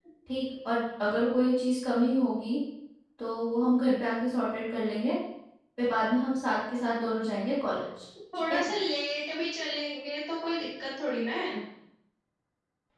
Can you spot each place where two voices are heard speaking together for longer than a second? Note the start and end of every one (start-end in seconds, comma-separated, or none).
none